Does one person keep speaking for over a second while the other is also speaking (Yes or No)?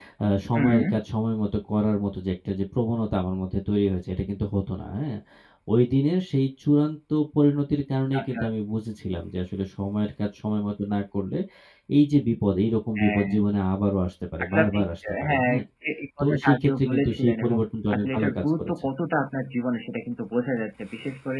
Yes